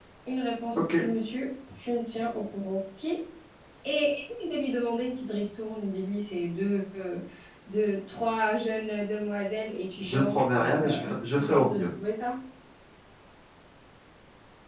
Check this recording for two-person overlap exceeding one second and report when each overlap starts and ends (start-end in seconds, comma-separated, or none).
10.0-11.8